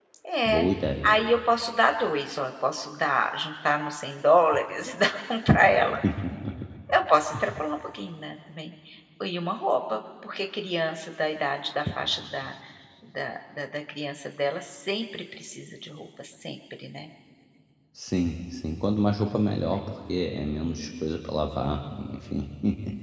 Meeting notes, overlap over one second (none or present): none